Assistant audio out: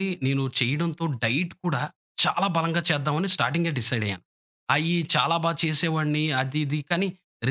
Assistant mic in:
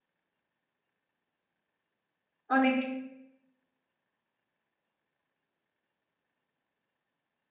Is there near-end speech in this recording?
Yes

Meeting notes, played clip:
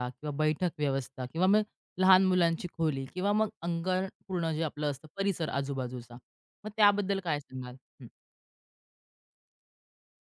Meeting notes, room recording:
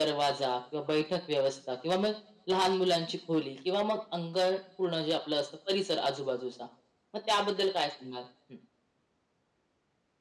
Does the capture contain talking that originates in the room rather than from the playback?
No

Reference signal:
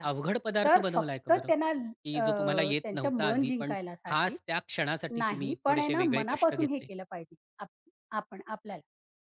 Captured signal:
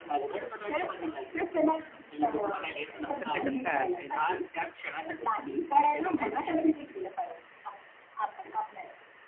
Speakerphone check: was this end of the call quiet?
No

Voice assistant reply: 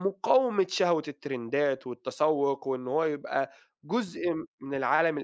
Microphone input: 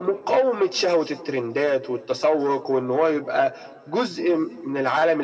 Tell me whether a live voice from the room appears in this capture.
No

